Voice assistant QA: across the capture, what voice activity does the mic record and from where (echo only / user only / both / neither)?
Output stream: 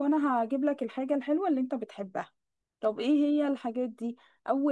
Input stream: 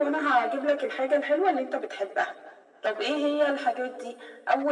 echo only